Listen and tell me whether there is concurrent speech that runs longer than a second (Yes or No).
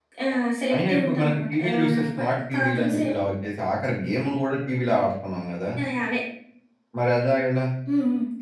Yes